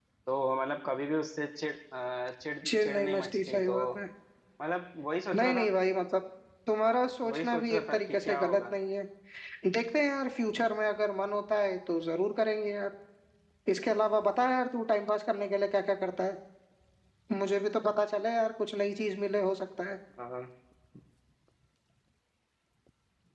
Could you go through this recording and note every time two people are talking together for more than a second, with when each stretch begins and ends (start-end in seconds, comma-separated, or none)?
2.6-3.9, 7.3-8.6